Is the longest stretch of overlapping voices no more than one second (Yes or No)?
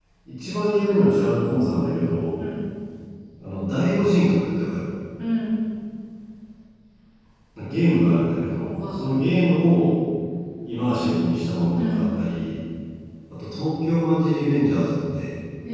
Yes